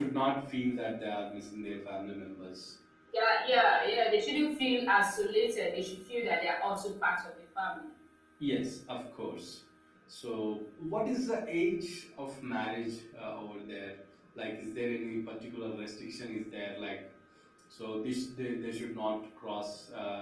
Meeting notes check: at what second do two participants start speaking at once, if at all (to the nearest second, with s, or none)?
none